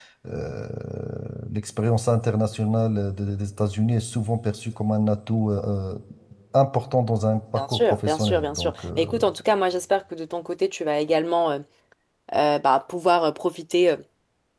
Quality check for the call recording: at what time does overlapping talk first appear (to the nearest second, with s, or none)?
8 s